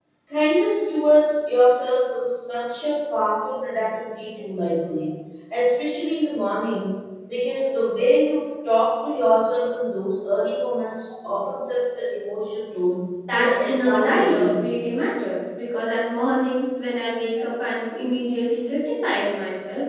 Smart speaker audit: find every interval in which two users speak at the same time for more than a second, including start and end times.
13.3-14.6

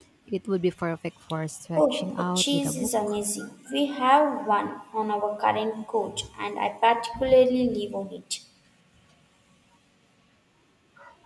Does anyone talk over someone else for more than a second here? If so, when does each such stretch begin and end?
1.8-3.2

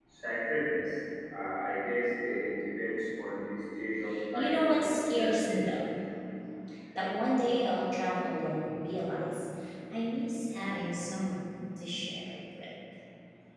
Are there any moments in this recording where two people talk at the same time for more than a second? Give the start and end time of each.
4.3-5.6

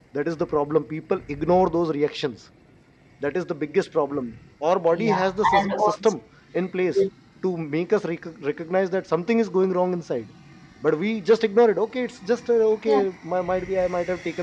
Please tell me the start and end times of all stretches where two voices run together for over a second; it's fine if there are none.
4.9-6.1

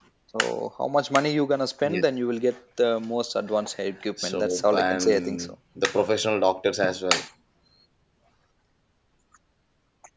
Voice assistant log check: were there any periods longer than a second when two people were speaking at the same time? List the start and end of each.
4.2-5.5

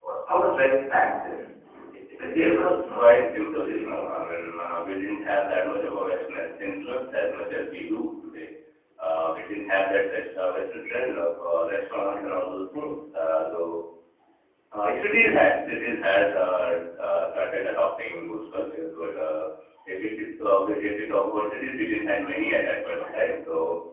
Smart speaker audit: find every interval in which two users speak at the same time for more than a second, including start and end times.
2.3-4.0

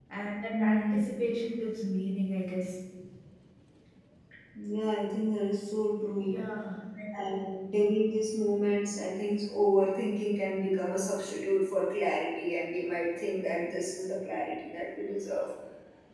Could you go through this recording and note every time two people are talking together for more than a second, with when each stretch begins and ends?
none

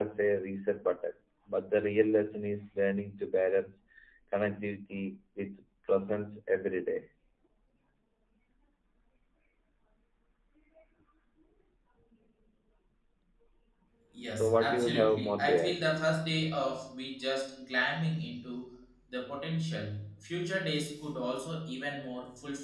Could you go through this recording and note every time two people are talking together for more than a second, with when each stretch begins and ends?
14.3-15.8

